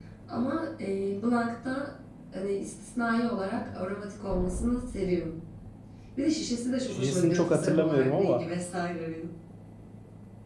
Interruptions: present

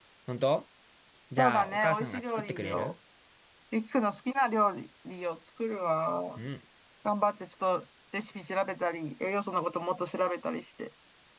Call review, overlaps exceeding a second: present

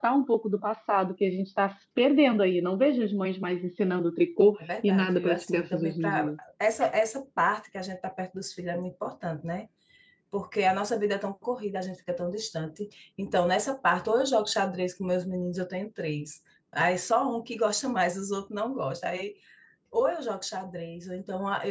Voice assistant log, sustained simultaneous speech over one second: present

